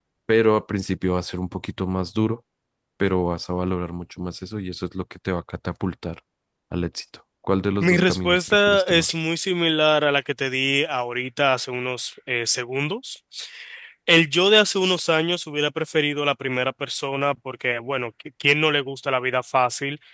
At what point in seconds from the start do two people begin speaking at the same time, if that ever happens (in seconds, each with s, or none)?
7.8 s